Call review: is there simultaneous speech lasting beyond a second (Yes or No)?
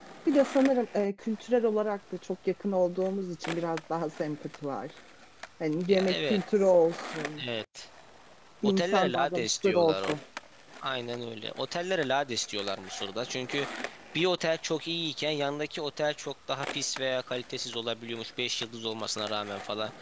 Yes